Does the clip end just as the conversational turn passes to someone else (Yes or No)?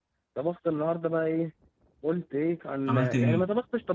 No